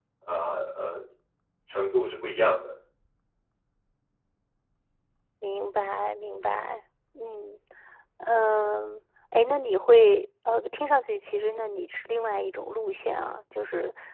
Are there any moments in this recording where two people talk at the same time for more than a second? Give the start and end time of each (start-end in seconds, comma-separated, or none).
none